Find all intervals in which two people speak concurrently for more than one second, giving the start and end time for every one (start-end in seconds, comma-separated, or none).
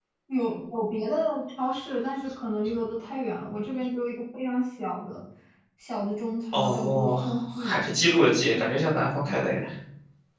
6.5-7.8